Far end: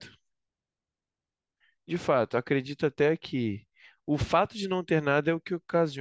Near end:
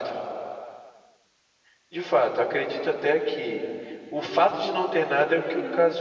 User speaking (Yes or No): Yes